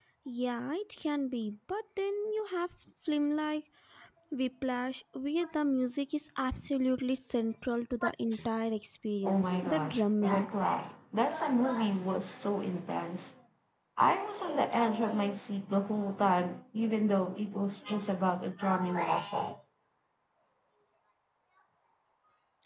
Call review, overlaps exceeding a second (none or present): present